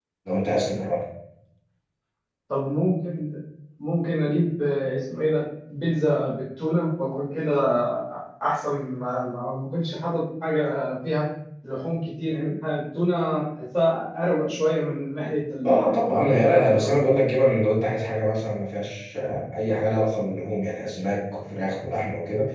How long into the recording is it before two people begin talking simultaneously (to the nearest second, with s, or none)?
16 s